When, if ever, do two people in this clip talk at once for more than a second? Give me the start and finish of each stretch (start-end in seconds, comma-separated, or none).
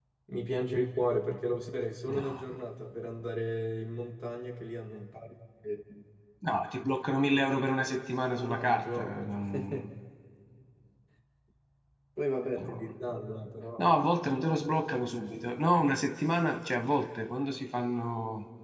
8.4-9.9